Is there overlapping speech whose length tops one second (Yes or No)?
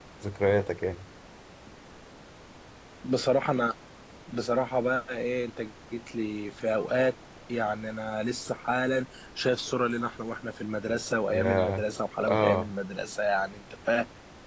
No